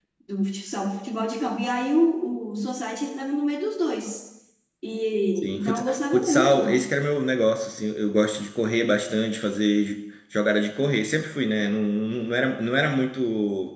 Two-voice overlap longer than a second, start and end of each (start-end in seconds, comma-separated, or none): 5.4-6.9